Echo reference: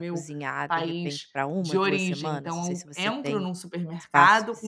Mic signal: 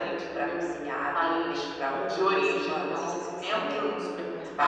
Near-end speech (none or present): none